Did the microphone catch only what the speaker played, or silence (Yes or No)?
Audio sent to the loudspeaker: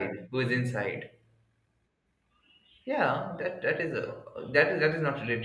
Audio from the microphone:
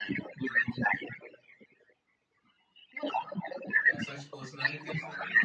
No